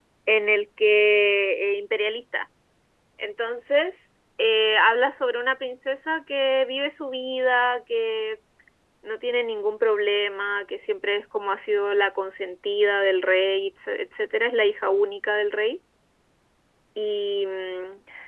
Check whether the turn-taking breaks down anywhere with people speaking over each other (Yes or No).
No